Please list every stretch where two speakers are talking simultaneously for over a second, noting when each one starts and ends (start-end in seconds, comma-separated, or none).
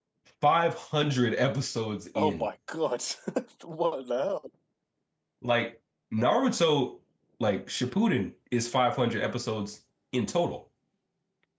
none